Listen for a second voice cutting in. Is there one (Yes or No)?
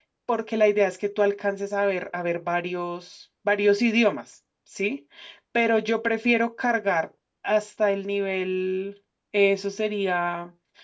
No